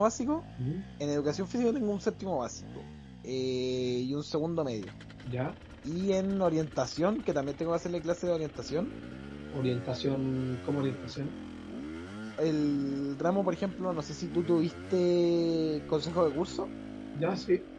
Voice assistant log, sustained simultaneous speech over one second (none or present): none